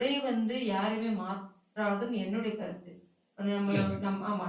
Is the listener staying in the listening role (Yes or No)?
Yes